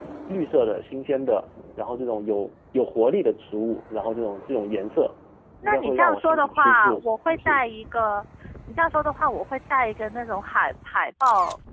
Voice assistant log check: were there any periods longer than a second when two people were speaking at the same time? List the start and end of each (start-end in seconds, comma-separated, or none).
5.6-7.7